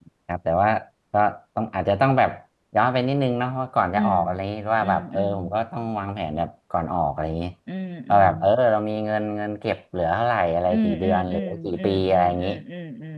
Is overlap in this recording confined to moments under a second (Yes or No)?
No